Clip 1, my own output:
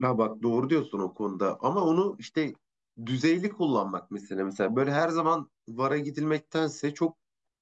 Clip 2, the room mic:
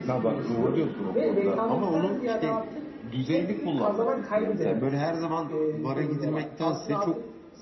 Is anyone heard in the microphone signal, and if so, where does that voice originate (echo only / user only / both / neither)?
both